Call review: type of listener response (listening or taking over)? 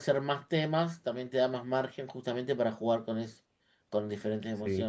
listening